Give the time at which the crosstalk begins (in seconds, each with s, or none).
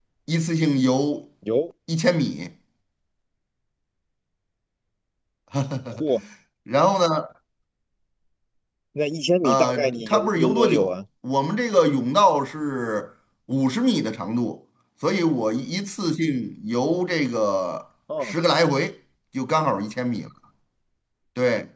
9.4 s